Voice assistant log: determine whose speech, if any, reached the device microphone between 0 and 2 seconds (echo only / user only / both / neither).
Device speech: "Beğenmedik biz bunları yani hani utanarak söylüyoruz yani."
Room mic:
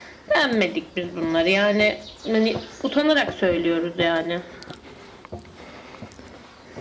echo only